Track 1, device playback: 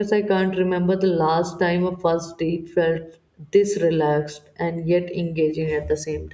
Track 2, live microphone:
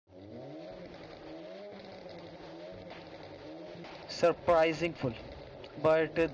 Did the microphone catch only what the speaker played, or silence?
No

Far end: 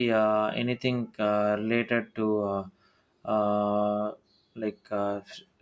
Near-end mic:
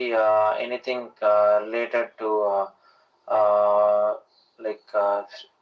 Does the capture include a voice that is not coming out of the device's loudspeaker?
No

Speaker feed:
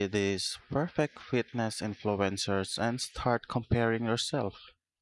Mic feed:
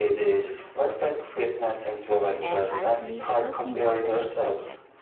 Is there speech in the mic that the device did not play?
Yes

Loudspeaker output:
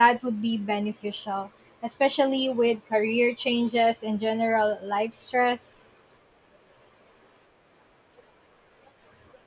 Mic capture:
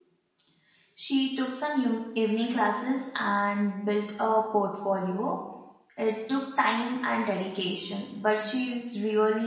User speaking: Yes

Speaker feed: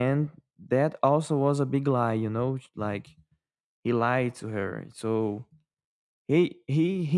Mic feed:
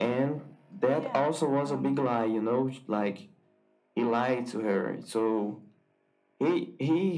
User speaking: Yes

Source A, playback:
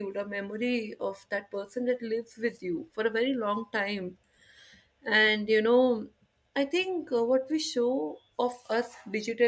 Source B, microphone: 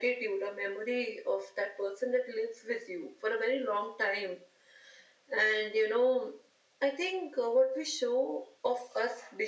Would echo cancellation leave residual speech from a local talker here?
No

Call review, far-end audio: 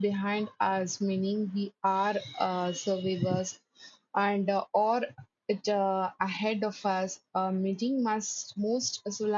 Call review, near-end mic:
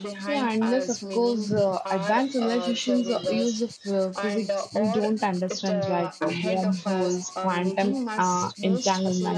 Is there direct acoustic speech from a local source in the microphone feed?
Yes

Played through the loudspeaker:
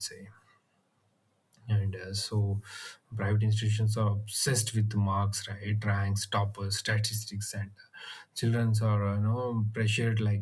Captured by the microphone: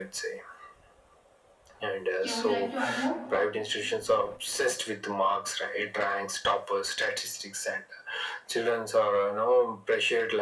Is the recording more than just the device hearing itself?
Yes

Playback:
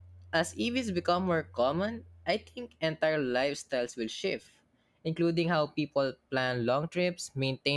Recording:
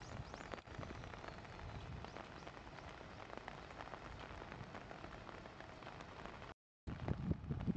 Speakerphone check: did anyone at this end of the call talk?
No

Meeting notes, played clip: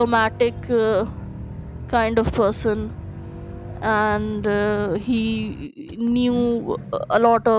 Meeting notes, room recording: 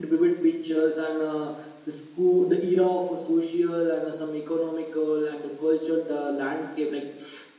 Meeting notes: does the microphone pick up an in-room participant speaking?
Yes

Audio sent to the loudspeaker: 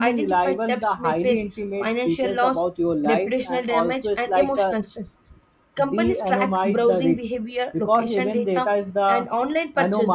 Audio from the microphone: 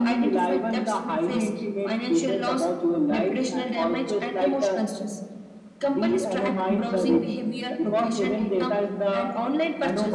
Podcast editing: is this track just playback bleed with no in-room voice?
Yes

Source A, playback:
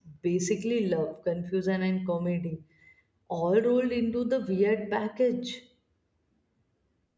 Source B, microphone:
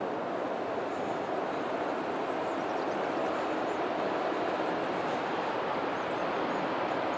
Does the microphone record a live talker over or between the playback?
No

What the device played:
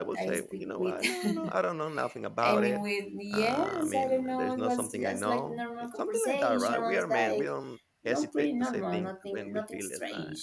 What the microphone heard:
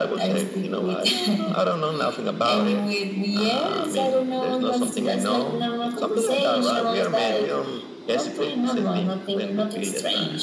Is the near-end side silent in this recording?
Yes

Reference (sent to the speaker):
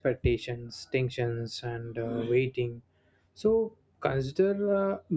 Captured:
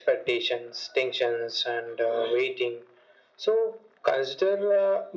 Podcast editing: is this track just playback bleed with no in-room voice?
Yes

